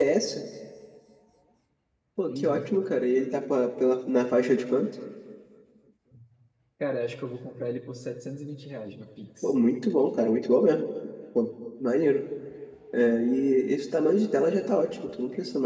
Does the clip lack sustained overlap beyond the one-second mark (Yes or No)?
Yes